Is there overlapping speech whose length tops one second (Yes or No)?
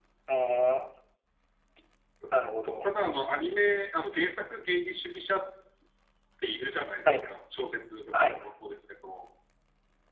No